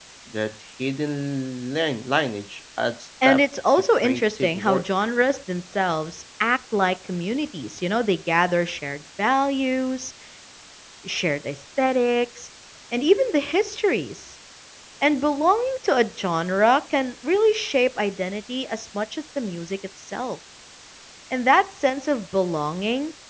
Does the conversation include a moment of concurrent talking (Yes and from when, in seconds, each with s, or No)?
Yes, from 3.2 s